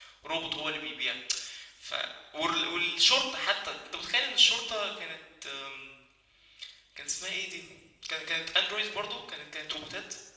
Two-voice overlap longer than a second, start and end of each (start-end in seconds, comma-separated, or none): none